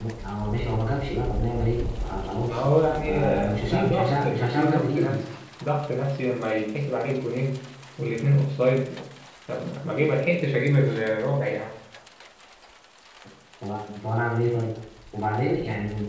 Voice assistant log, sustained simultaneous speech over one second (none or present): present